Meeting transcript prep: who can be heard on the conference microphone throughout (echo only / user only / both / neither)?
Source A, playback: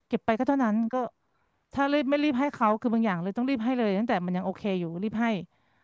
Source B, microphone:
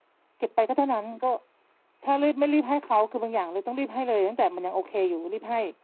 echo only